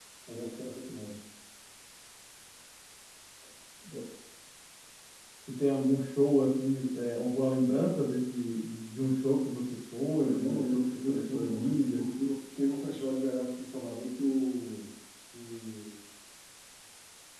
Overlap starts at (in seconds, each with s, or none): 10.1 s